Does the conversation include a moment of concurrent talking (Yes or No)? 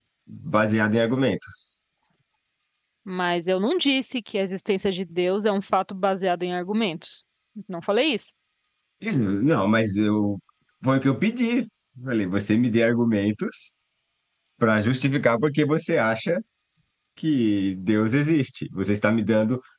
No